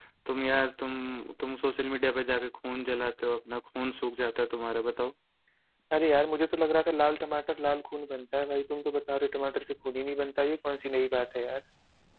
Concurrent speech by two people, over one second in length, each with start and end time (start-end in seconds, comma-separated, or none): none